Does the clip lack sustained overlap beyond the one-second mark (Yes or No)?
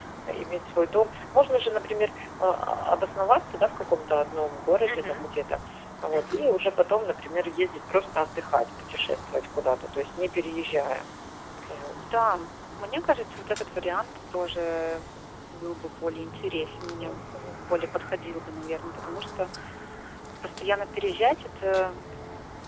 Yes